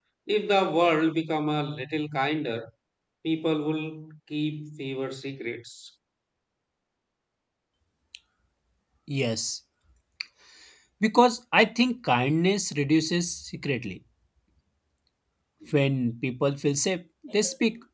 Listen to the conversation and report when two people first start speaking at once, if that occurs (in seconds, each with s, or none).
none